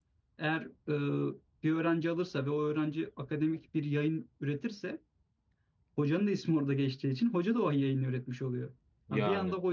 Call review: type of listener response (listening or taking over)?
listening